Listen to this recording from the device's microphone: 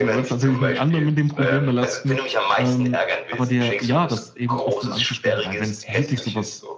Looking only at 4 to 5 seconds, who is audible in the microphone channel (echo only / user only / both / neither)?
both